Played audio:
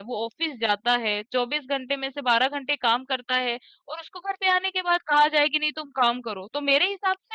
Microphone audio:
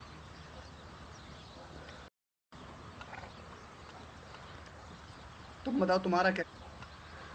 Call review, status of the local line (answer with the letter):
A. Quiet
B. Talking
B